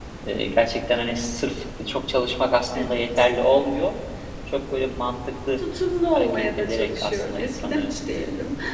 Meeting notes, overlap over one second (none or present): present